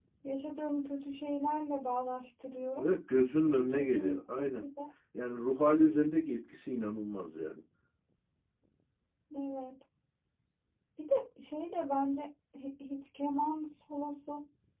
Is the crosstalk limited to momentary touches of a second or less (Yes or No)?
No